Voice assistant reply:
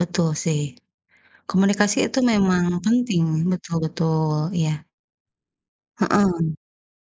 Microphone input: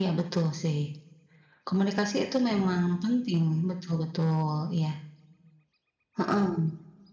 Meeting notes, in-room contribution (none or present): none